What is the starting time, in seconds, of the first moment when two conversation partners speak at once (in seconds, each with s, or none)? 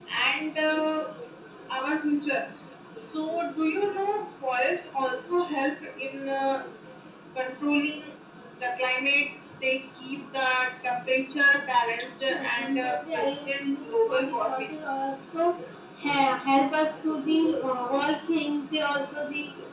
12.3 s